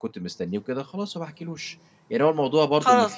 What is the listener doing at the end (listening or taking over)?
taking over